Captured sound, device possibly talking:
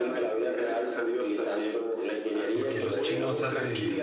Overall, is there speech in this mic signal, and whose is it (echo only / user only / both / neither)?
both